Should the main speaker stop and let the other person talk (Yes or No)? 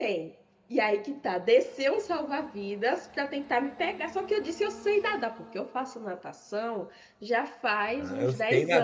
Yes